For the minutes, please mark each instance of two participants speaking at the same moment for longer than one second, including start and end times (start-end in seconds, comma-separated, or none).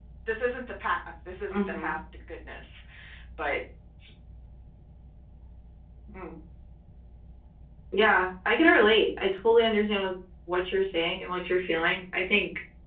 none